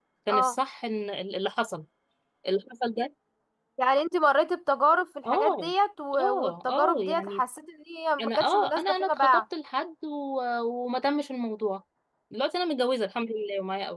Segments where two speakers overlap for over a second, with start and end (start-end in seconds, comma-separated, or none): 6.2-7.4, 8.2-9.4